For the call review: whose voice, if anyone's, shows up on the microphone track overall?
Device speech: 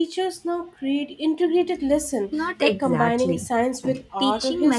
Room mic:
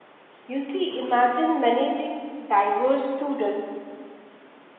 user only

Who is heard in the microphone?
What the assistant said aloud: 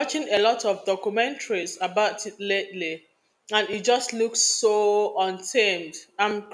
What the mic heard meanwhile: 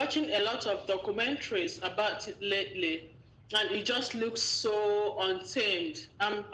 echo only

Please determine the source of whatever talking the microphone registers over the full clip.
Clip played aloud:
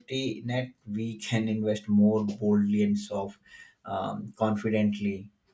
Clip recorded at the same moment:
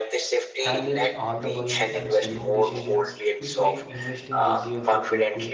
both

